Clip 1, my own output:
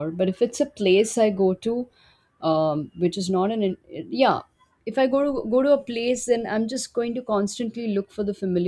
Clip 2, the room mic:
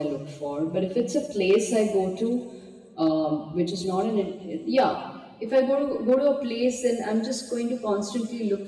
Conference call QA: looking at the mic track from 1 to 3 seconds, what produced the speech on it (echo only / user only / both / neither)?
echo only